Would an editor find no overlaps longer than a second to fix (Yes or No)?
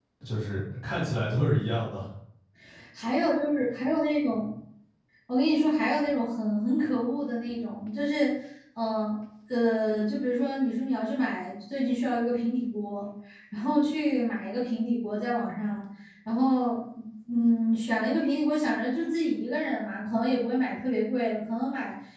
Yes